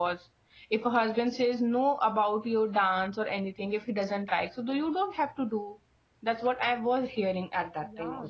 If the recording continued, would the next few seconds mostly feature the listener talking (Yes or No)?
Yes